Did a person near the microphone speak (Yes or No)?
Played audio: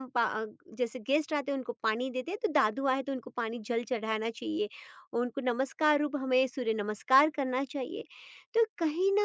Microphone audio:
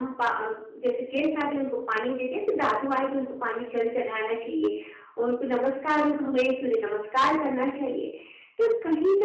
No